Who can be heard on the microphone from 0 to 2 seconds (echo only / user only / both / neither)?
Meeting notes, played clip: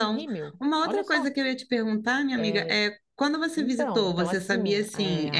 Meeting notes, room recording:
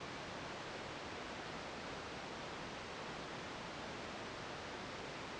neither